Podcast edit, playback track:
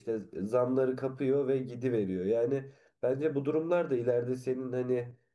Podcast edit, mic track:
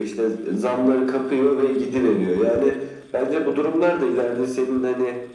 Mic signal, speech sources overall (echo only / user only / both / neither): echo only